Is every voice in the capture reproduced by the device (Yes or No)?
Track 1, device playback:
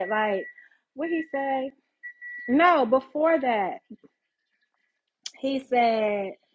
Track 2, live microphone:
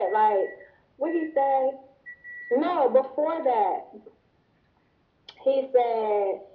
Yes